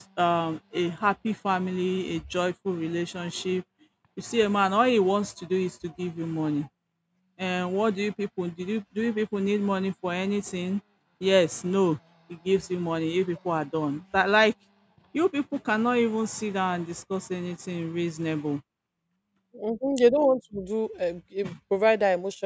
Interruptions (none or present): none